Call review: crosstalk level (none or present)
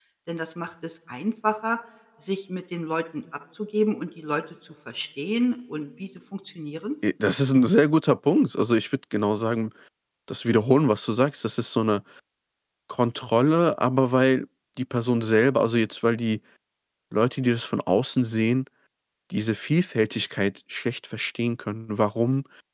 none